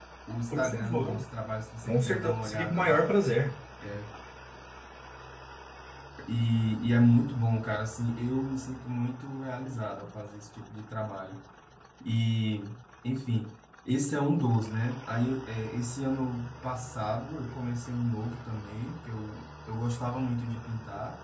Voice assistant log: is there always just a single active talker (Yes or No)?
No